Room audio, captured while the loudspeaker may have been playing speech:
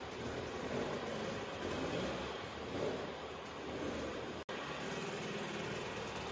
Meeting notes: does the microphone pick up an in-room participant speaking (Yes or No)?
No